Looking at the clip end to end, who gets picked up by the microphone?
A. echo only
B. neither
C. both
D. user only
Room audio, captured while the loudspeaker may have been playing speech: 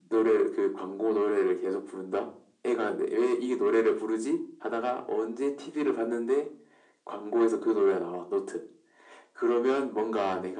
A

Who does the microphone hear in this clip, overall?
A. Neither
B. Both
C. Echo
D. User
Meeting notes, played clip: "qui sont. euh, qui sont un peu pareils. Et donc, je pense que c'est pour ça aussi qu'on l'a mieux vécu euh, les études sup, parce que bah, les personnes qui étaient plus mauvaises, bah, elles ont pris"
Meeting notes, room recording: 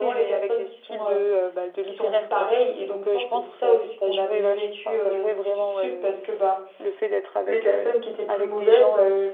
B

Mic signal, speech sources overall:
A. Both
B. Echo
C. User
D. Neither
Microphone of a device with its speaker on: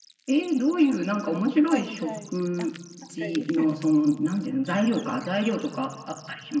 A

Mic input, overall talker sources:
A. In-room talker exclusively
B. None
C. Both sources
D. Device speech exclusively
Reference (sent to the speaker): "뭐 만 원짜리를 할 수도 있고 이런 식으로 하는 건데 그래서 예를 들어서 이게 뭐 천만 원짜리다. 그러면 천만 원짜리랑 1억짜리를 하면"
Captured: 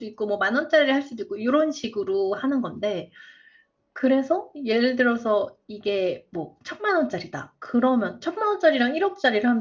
D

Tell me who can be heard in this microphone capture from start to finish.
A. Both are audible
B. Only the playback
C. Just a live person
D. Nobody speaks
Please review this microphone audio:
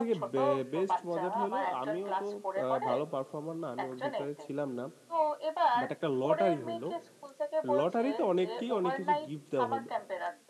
A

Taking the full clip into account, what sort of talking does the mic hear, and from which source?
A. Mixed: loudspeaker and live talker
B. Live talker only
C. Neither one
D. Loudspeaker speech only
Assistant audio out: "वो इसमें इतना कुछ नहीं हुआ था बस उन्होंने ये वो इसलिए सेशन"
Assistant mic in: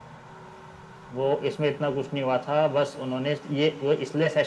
D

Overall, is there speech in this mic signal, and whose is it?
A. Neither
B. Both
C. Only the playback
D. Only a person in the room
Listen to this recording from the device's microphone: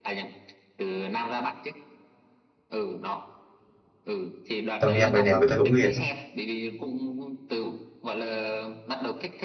B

